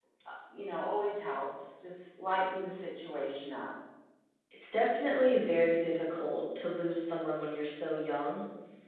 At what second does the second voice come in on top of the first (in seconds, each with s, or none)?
none